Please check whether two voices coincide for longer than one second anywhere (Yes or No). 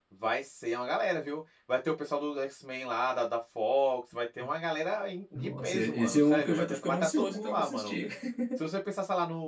Yes